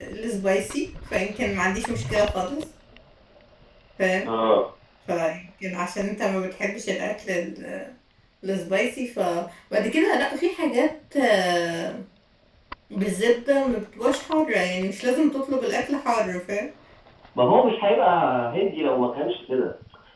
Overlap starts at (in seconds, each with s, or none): none